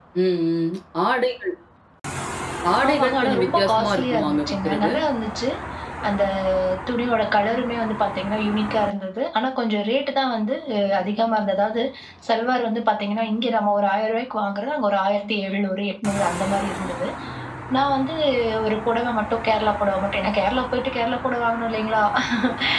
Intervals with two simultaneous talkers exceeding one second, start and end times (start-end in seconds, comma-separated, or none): 2.9-4.9